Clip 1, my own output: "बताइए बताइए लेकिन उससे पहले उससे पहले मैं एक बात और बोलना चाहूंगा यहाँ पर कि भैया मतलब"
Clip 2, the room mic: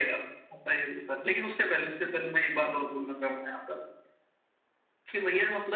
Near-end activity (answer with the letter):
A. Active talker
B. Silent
B